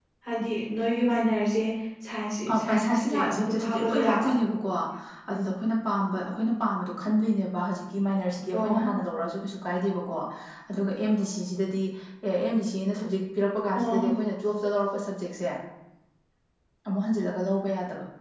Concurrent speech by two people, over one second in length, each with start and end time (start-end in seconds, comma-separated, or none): 2.5-4.3